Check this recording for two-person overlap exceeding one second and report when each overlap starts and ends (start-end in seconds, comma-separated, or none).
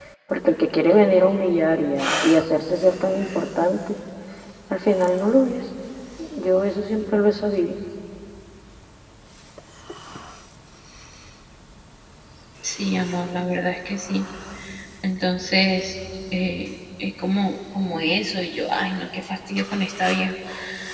none